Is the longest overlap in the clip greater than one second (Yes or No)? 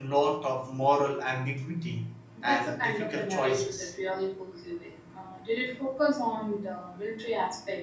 Yes